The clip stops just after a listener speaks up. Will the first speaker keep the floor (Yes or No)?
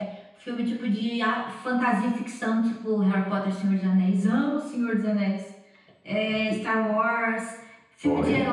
Yes